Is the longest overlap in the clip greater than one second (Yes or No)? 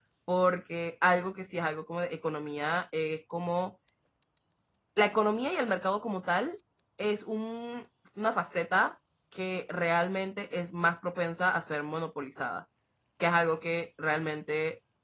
No